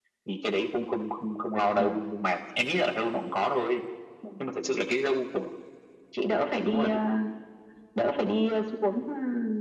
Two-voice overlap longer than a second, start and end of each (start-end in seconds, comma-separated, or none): none